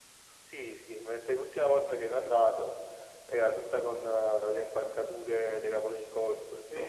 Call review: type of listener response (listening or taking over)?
taking over